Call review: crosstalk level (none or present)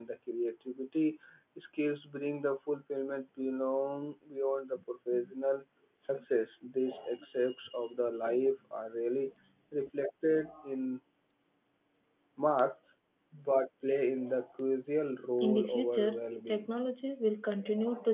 present